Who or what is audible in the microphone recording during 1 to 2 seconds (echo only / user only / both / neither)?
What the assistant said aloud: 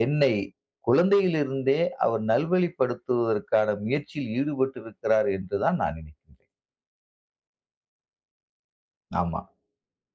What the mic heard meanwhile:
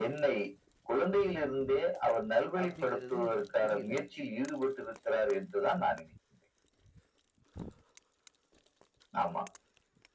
echo only